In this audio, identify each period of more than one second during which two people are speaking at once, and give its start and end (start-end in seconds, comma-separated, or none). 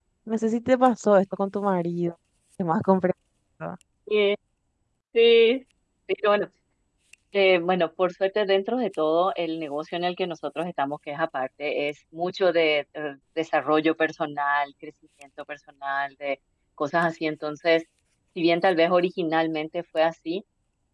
none